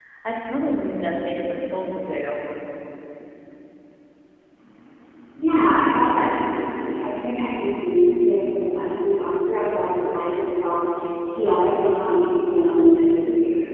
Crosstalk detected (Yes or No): No